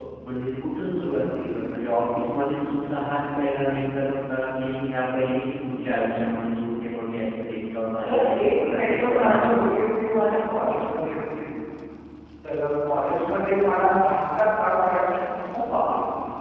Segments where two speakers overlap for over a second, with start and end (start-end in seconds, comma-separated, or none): 8.0-9.5